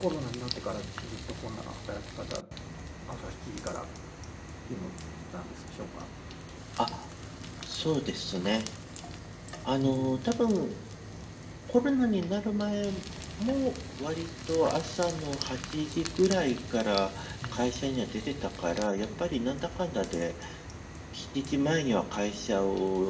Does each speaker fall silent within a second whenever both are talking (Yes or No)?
Yes